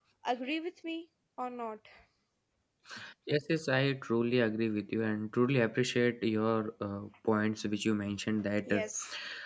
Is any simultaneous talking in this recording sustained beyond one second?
No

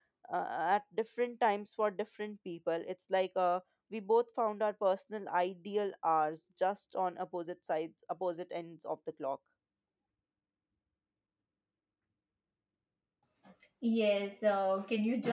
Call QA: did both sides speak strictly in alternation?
Yes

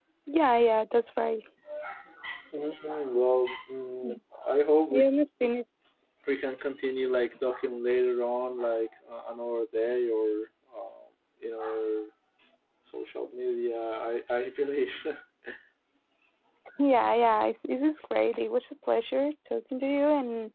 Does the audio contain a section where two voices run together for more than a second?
No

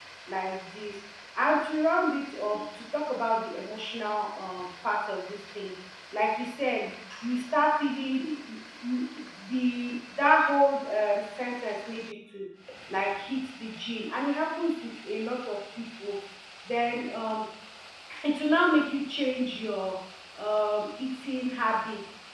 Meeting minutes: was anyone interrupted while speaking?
No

